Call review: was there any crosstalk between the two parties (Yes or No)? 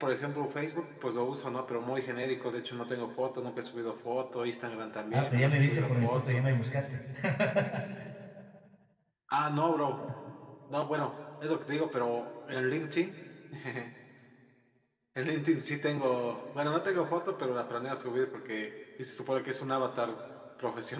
Yes